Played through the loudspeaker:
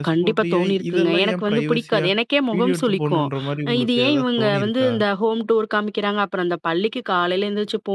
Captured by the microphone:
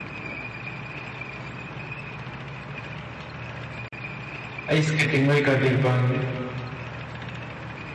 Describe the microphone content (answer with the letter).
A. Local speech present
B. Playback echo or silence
A